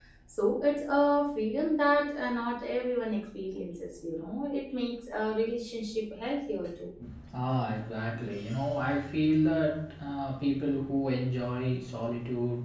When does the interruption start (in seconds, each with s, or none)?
none